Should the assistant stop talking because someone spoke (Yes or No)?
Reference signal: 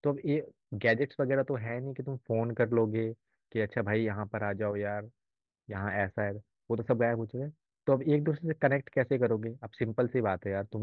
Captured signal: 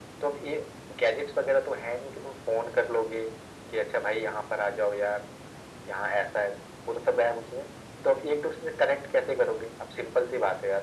No